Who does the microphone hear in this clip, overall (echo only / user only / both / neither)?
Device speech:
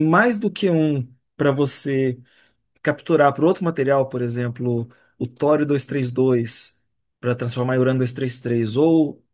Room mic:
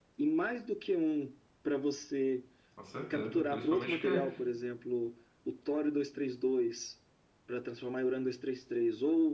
both